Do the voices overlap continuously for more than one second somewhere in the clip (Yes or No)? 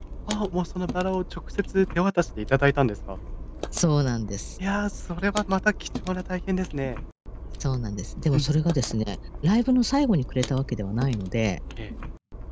No